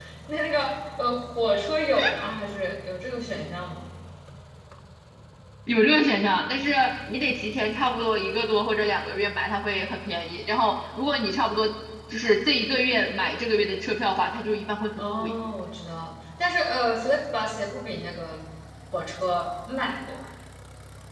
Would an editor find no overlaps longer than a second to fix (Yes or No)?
Yes